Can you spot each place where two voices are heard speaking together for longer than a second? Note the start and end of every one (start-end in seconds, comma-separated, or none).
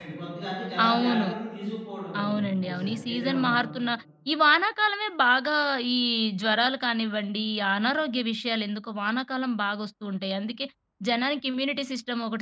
2.2-3.6